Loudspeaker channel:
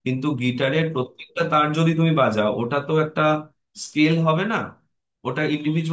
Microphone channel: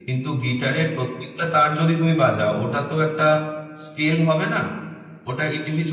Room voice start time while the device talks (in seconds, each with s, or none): none